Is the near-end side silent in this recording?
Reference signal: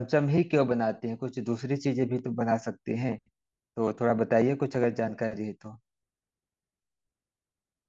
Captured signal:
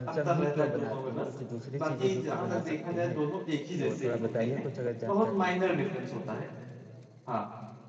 No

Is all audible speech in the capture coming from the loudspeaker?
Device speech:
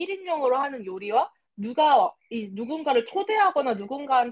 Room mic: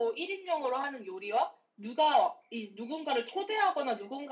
Yes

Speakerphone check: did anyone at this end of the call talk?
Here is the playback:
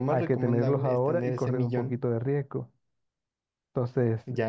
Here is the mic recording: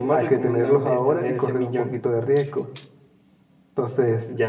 No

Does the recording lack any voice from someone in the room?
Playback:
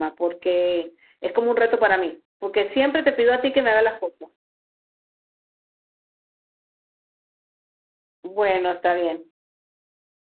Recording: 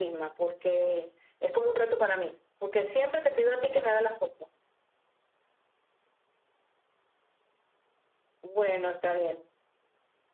Yes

